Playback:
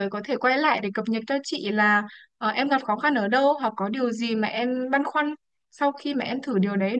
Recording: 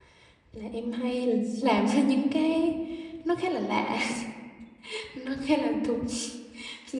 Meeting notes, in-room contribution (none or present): present